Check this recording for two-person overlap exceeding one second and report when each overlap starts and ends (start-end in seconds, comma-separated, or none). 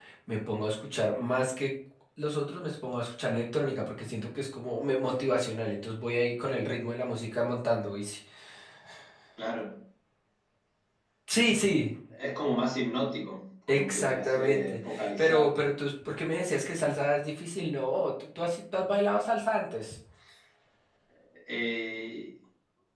13.7-15.5